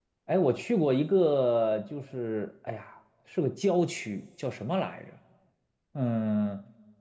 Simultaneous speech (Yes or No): No